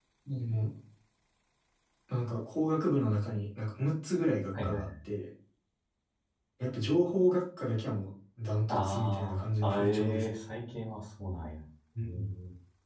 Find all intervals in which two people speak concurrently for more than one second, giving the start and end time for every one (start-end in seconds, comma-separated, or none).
8.7-10.2